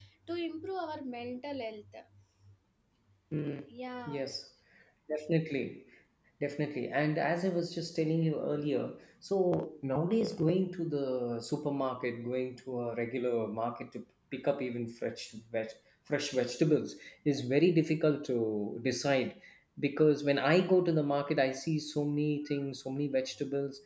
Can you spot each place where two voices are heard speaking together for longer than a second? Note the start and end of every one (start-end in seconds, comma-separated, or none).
none